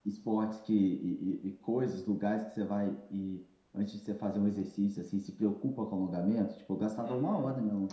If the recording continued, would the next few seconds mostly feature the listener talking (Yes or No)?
Yes